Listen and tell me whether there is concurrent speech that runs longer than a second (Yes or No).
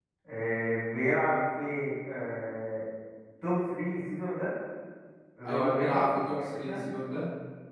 Yes